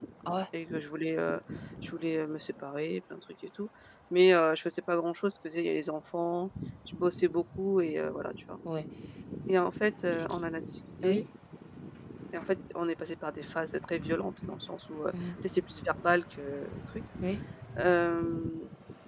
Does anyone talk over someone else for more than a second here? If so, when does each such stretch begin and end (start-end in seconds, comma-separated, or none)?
none